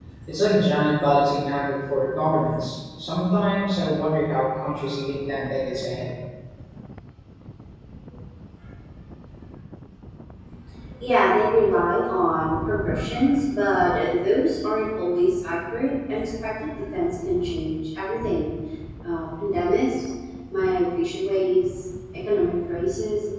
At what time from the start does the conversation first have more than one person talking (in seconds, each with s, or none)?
none